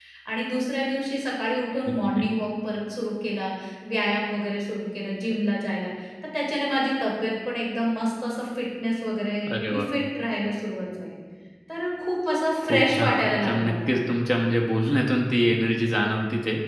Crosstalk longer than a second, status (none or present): present